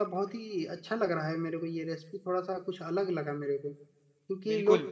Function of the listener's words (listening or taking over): listening